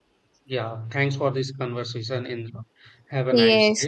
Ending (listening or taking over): taking over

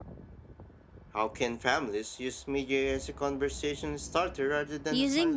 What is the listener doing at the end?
taking over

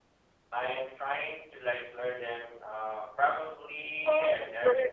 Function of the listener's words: taking over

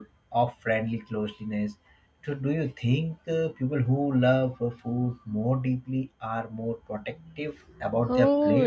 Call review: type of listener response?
taking over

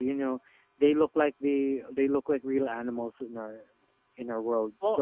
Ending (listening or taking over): taking over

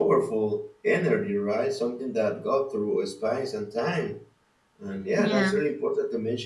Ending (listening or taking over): listening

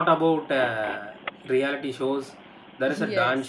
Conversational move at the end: listening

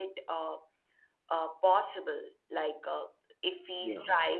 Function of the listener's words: listening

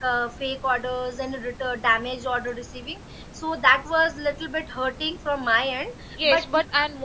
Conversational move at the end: taking over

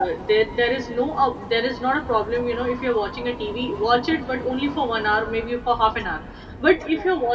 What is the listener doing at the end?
listening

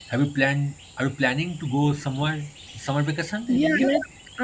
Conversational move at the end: taking over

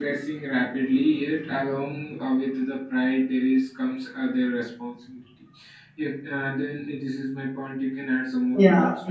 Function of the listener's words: taking over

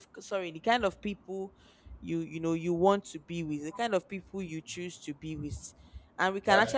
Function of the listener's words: listening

